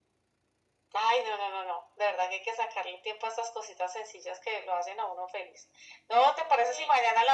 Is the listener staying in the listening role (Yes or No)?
Yes